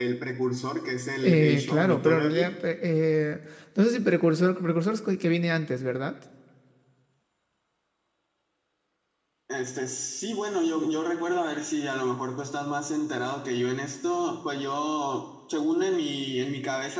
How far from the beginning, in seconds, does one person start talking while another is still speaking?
1.2 s

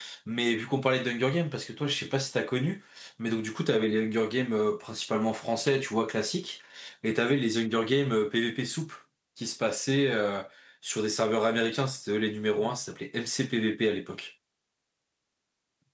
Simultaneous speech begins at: none

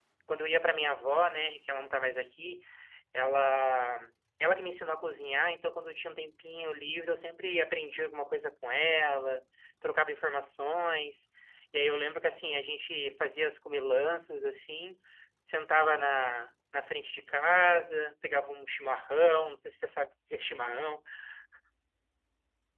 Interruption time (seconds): none

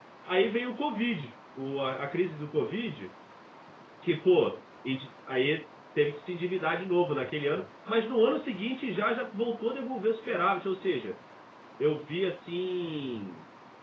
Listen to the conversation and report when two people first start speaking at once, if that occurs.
none

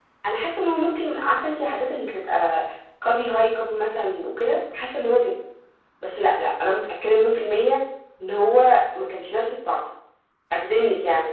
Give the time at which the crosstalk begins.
none

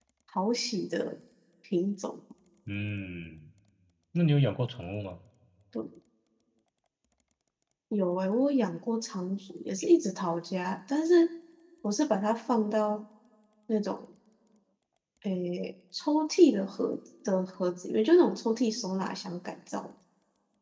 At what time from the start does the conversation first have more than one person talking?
none

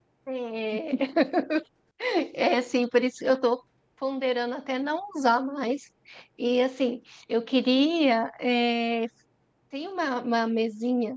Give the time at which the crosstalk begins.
none

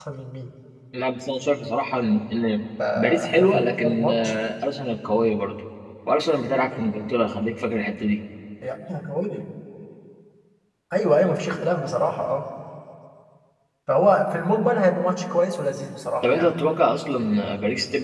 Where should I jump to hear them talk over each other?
3.0 s

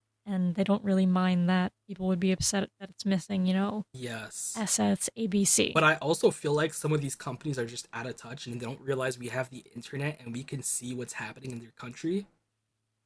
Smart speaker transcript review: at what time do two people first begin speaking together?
none

